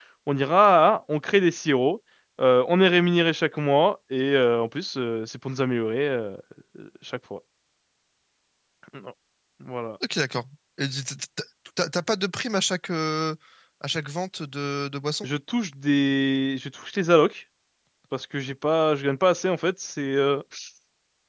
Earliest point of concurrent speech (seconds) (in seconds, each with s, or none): none